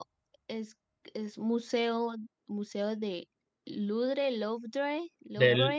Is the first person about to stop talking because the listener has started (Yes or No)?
Yes